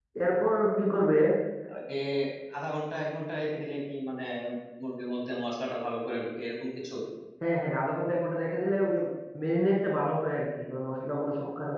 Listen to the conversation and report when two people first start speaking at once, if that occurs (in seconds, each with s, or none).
none